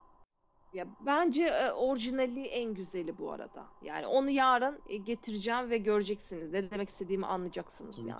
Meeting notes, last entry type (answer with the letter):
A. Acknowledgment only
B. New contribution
B